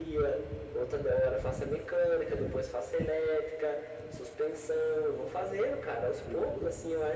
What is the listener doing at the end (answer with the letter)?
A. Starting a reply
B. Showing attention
B